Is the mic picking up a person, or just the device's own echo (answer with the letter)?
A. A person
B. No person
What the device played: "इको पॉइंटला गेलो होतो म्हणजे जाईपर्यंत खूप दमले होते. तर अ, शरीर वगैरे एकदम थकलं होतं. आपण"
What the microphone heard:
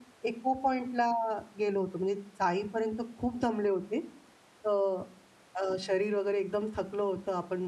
B